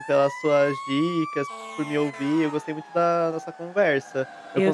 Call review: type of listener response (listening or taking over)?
listening